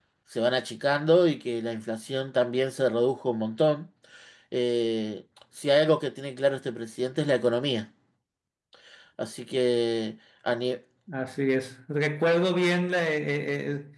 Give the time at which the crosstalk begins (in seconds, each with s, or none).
none